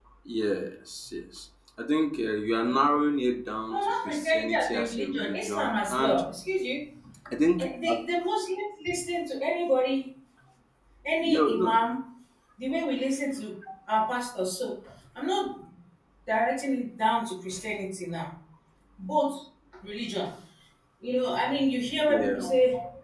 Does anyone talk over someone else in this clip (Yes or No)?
Yes